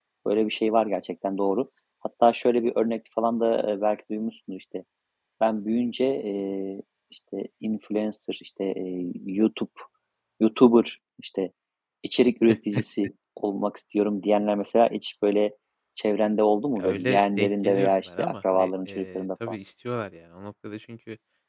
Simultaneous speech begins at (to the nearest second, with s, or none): 17 s